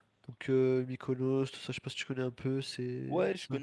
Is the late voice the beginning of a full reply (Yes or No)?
Yes